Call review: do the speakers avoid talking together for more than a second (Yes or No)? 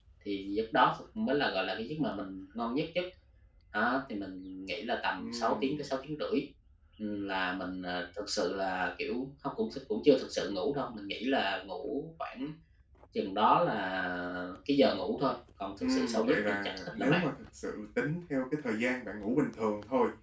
No